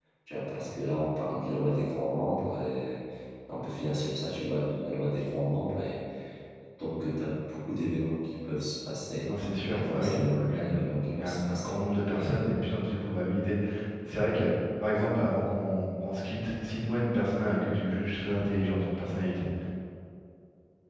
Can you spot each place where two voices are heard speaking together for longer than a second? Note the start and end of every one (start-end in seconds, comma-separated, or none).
9.7-11.8